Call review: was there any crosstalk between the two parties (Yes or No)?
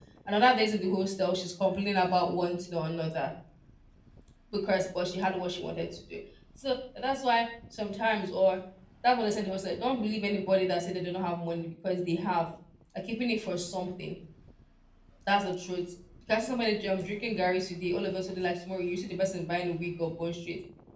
No